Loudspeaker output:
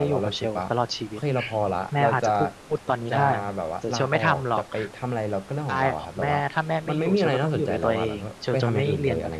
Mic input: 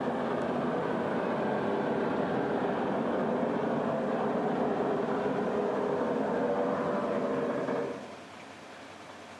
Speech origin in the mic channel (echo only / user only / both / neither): neither